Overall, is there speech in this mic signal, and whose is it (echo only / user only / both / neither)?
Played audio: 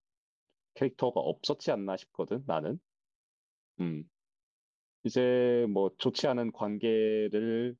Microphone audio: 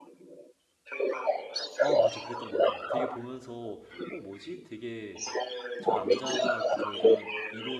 both